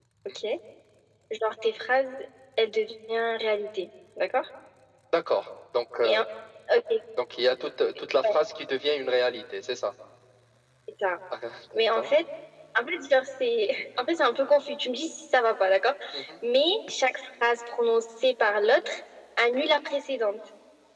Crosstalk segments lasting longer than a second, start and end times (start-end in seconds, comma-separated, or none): none